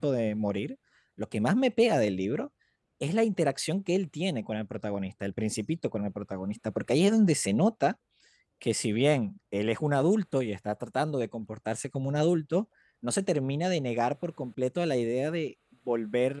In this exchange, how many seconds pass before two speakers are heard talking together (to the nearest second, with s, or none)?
none